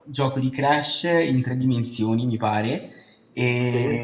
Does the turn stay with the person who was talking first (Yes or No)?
Yes